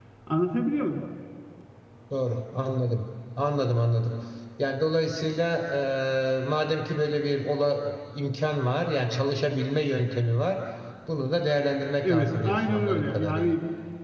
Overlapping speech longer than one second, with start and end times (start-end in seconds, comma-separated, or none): 12.0-13.6